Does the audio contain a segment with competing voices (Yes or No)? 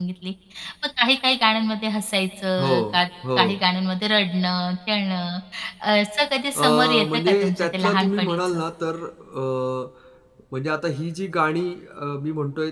Yes